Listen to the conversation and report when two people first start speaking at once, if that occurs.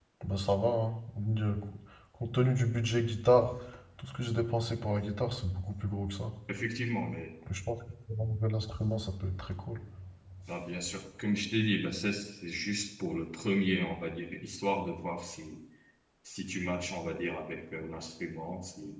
none

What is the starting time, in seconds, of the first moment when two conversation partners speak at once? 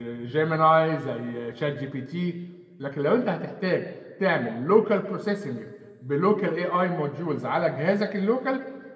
none

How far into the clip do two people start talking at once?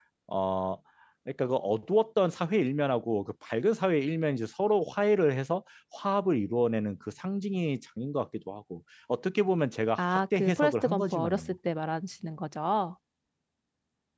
10.0 s

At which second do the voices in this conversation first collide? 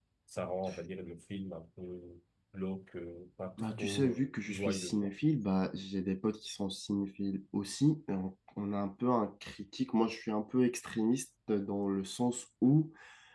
3.6 s

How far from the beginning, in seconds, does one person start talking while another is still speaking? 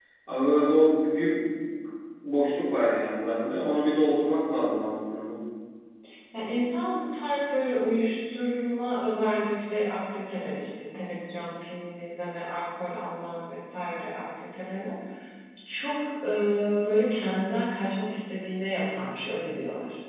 none

